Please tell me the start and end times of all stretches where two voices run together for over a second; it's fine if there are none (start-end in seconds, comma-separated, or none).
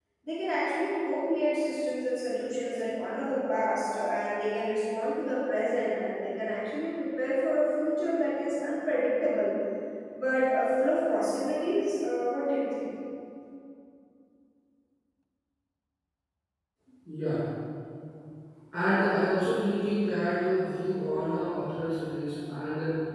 none